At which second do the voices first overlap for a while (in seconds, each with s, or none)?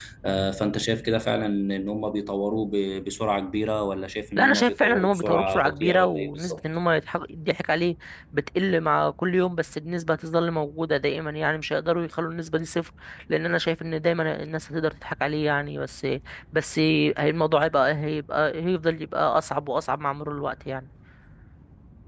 4.4 s